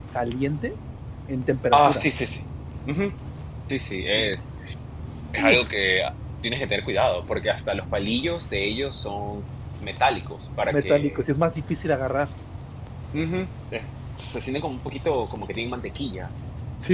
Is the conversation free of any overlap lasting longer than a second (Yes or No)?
Yes